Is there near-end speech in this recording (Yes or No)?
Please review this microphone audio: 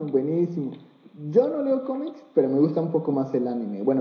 No